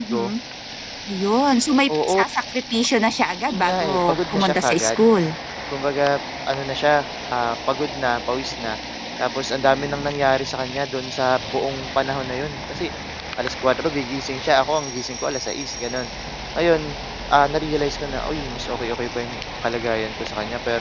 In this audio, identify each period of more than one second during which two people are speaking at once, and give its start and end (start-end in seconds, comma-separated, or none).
3.5-5.0